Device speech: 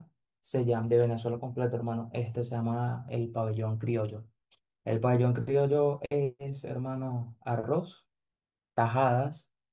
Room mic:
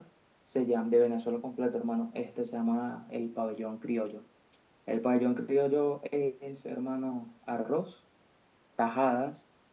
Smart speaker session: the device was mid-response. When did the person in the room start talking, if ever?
none

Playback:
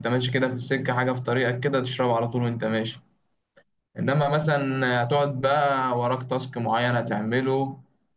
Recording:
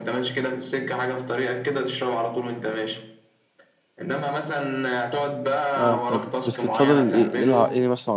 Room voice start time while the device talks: 5.8 s

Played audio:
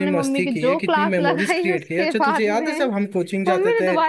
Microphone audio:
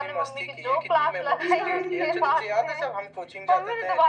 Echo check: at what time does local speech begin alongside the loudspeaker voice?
1.4 s

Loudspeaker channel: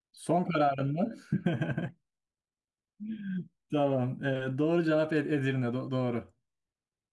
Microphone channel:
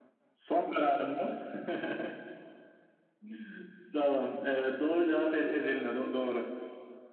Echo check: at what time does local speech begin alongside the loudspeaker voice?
none

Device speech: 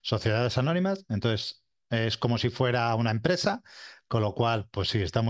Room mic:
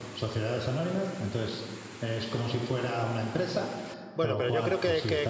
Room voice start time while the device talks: 4.1 s

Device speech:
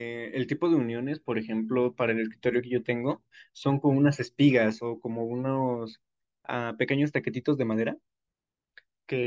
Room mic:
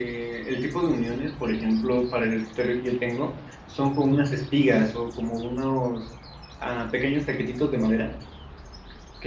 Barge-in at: none

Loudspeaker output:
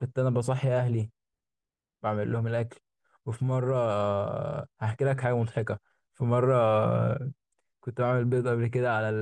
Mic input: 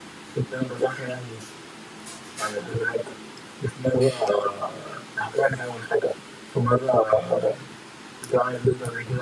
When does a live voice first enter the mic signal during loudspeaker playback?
none

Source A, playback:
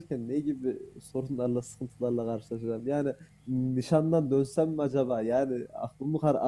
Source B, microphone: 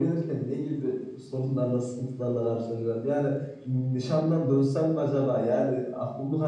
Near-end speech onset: none

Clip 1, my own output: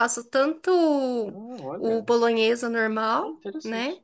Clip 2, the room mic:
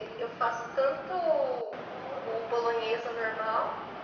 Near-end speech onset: none

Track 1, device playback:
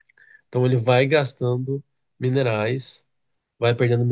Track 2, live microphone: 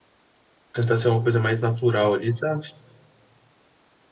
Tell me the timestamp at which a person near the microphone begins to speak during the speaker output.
0.7 s

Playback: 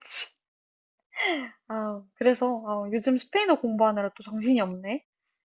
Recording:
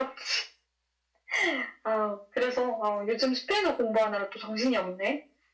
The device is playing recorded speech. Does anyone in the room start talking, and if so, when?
none

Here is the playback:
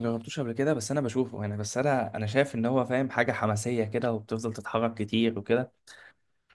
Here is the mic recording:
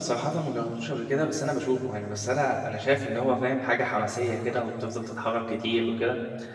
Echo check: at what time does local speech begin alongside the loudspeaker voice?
none

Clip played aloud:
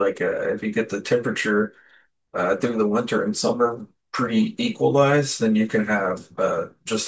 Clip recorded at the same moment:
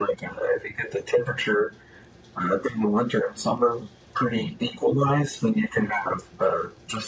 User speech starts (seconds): none

